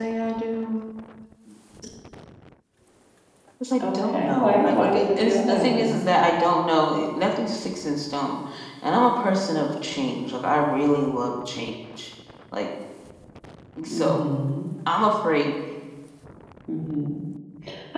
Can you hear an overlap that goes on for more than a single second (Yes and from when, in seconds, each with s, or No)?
Yes, from 3.8 s